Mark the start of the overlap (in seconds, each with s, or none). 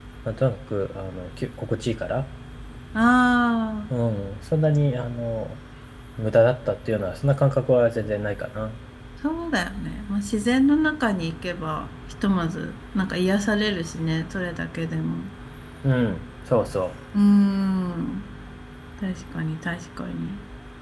none